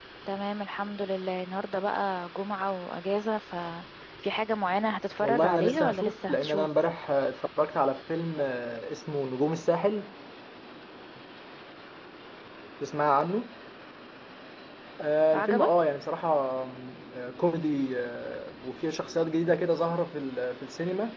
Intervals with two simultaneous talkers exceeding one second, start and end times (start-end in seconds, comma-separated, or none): 5.2-6.7